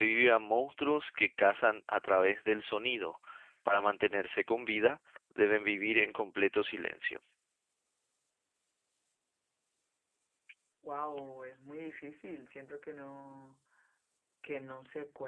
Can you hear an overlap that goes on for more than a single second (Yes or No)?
No